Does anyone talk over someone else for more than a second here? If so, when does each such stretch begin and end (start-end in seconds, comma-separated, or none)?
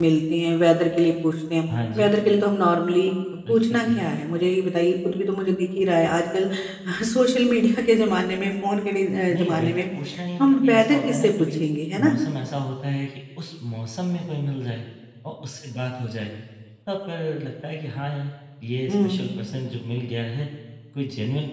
10.4-11.6